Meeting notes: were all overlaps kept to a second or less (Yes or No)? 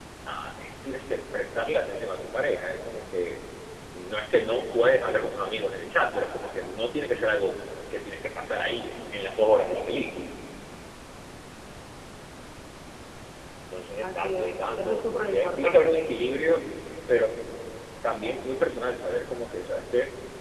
No